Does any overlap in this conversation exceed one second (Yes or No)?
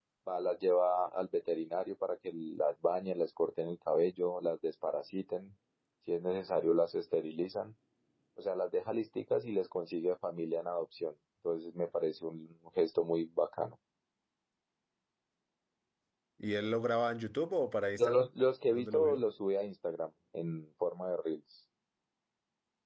No